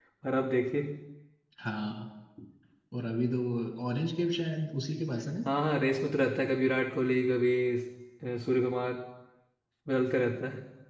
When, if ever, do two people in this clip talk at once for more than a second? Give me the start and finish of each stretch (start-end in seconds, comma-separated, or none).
none